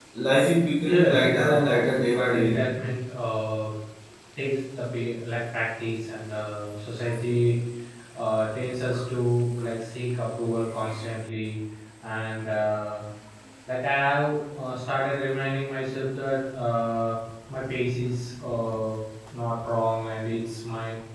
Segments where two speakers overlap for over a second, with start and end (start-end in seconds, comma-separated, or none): 0.9-2.5